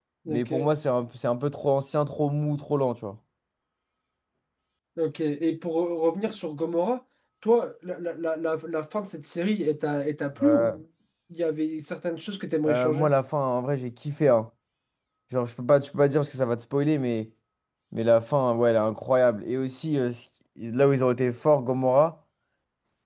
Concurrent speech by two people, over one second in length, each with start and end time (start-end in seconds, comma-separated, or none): none